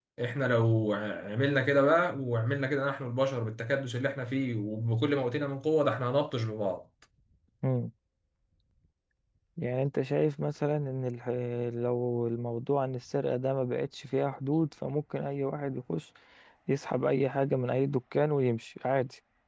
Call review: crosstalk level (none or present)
none